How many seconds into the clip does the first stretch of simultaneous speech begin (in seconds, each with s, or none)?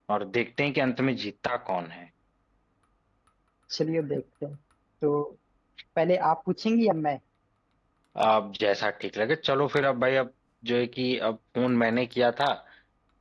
none